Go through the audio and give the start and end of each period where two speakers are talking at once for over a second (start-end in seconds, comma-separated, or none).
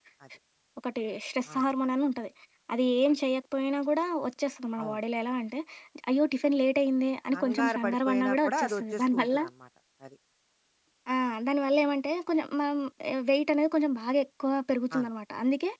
7.3-9.4